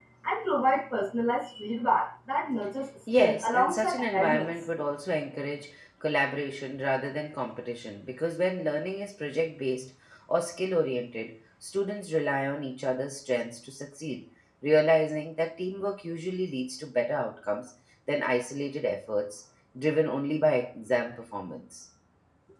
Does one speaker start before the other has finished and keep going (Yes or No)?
Yes